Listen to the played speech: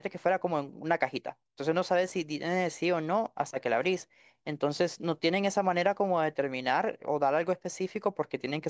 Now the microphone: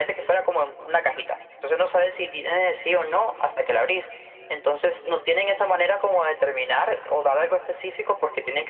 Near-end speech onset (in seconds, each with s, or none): none